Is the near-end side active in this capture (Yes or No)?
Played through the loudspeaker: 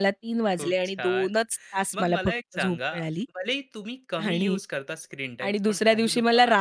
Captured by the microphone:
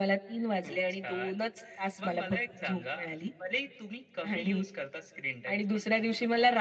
No